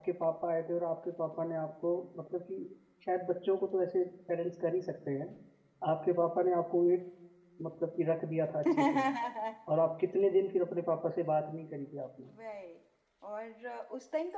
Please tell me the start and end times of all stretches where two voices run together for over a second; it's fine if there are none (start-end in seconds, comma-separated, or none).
none